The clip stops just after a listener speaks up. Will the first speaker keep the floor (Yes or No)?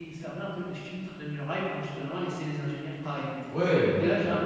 No